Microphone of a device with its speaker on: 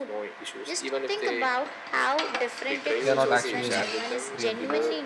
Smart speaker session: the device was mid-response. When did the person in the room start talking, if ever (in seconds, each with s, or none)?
3.0 s